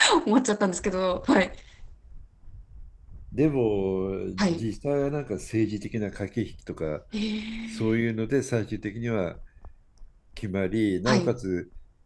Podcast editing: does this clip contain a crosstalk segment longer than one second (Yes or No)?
No